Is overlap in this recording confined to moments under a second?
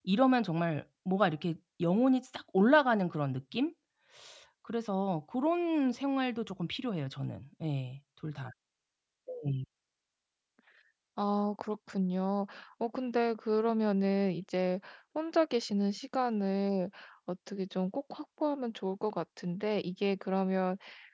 Yes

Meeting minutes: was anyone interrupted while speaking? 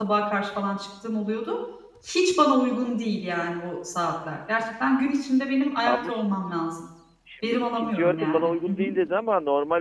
Yes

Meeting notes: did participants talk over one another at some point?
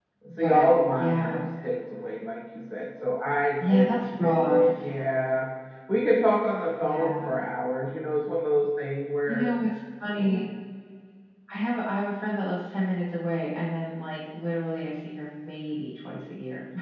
Yes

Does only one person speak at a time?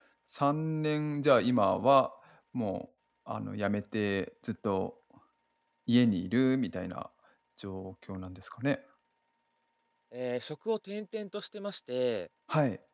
Yes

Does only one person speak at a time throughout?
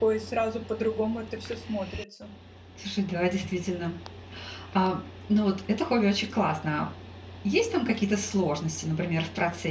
Yes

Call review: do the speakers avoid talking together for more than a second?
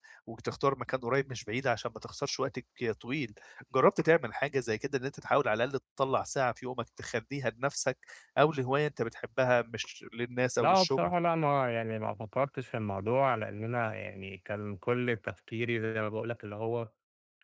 Yes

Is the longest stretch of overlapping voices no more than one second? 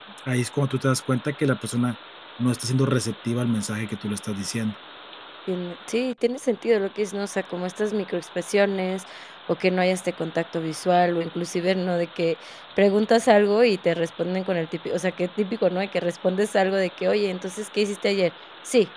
Yes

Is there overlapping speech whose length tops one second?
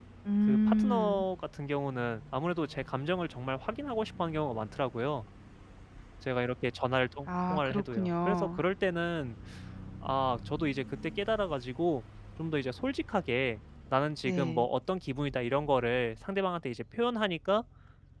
Yes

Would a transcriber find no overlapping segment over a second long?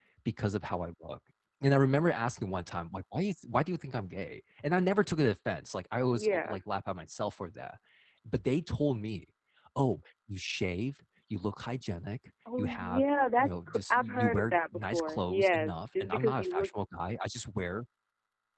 No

